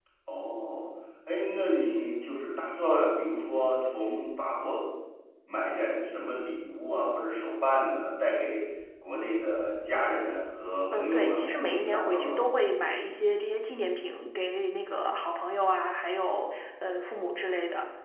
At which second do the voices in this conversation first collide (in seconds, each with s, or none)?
10.9 s